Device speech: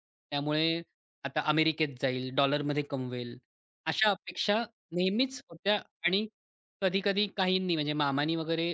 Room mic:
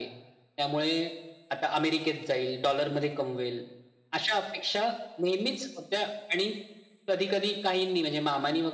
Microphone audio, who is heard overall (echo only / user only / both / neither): echo only